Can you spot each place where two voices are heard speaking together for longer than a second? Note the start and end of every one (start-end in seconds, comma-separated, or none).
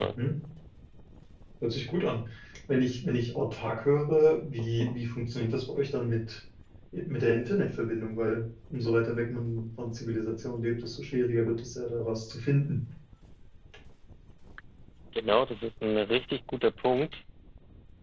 none